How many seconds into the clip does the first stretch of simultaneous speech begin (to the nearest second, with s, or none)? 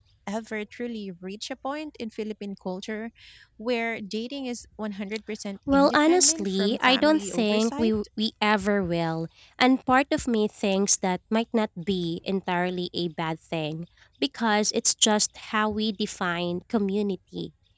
6 s